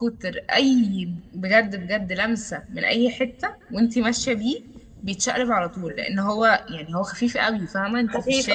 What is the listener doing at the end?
taking over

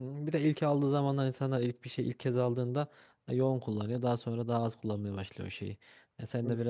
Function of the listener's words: listening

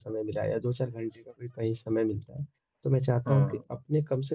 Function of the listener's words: listening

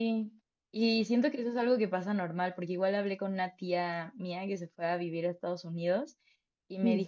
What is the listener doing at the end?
listening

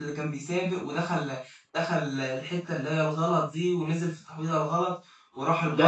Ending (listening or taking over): taking over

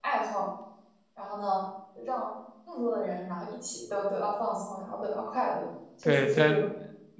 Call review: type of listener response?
taking over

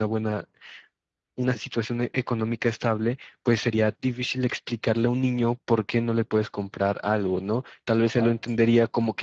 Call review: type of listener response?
listening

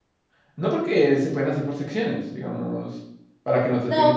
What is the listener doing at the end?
taking over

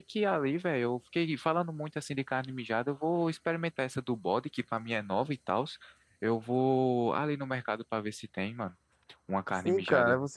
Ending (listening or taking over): taking over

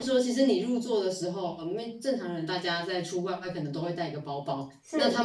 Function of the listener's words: listening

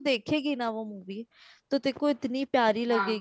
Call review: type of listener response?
listening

